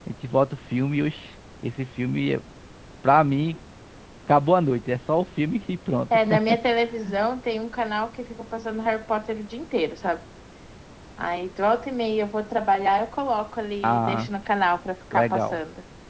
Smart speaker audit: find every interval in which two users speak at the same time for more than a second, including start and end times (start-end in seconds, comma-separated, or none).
none